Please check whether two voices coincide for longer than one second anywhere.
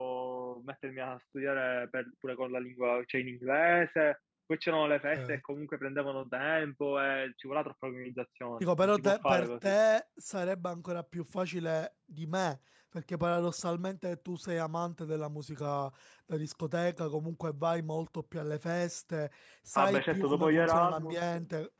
Yes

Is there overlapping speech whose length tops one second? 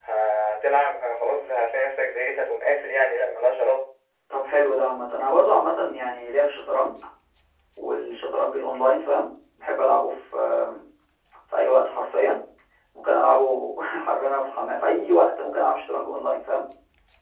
No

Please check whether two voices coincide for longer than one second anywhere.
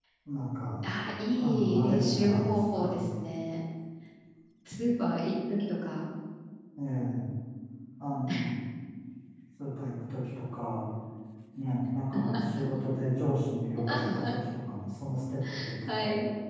Yes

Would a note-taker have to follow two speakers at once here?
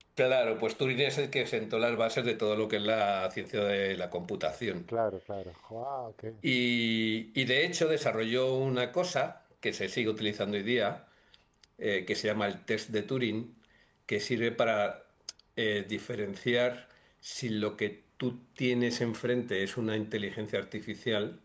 No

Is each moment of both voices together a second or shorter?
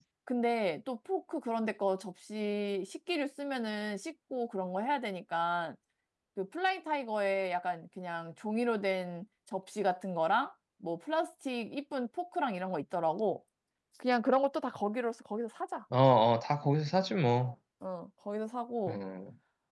Yes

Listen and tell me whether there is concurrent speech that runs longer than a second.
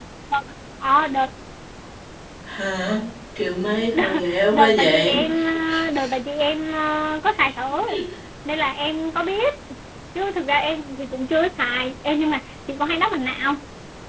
Yes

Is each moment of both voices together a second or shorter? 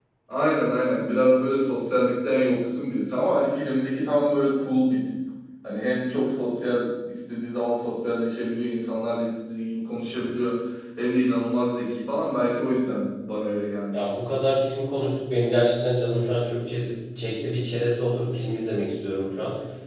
Yes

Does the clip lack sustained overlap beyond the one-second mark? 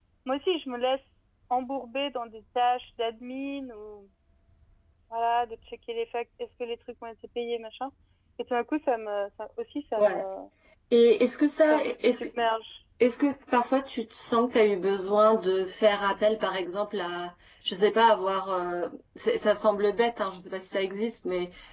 Yes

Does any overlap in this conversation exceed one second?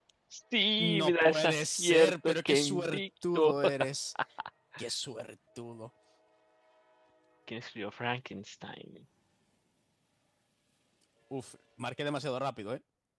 Yes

